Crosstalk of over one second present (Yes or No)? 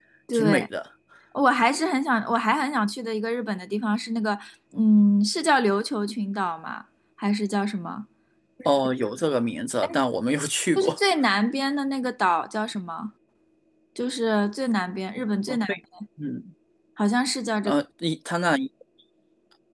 No